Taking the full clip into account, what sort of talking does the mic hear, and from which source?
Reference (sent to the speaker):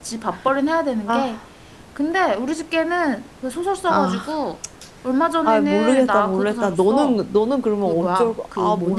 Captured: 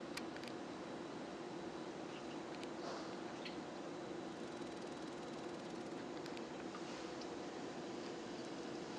neither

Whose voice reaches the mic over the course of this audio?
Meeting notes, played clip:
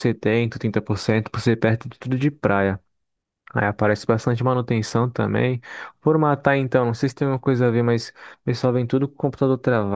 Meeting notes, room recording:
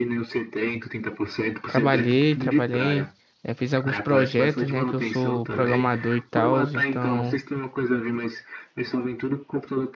both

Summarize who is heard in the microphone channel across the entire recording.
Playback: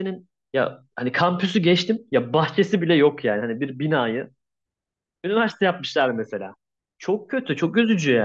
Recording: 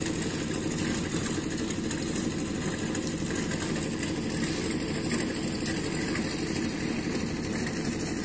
neither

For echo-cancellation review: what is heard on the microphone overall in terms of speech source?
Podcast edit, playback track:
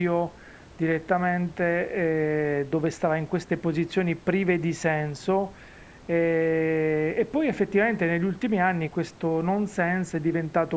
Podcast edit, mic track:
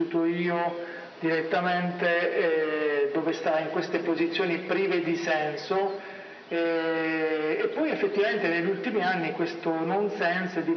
echo only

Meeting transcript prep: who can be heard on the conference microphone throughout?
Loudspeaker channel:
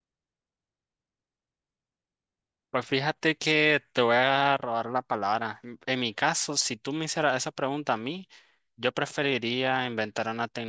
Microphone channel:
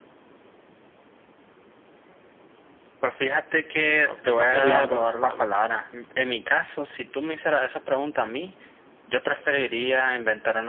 both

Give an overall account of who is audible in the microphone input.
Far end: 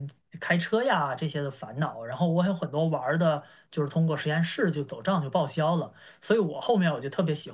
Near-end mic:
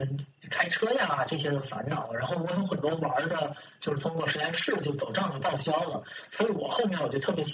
echo only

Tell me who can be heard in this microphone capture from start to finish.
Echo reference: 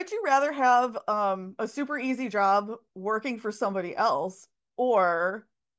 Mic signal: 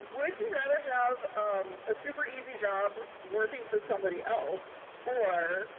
echo only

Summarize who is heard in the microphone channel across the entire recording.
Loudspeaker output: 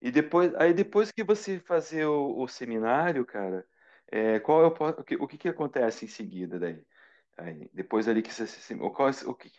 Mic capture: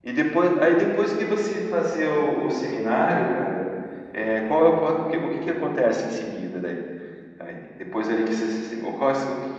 echo only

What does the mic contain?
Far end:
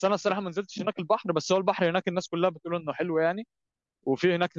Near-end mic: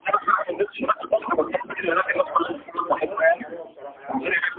both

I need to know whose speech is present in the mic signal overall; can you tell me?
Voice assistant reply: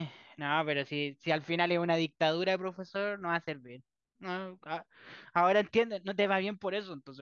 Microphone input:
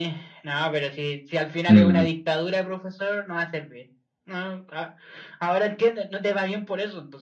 both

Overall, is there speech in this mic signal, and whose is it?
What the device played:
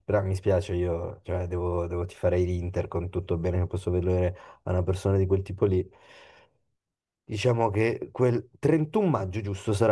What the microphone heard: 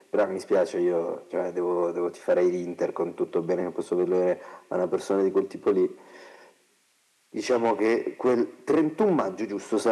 echo only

